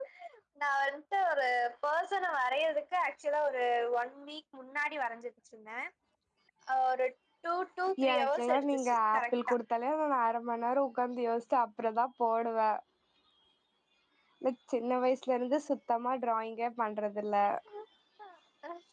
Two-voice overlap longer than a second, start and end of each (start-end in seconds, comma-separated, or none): 8.1-9.6